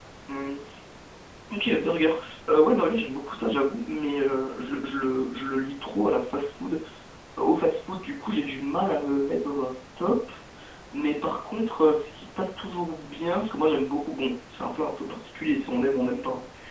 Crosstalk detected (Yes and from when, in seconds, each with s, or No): No